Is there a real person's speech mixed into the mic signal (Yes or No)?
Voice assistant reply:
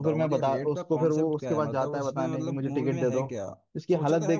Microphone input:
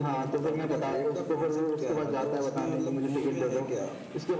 No